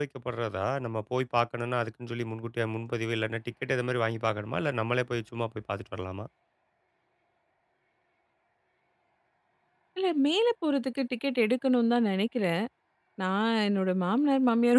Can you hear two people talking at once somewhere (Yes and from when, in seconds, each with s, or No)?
No